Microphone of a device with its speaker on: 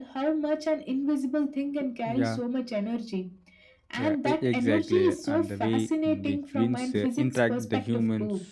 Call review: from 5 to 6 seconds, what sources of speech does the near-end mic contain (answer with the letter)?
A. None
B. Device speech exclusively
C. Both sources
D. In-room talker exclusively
C